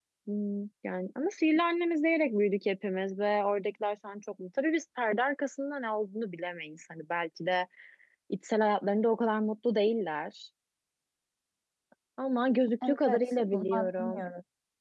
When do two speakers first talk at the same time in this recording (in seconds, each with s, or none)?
12.8 s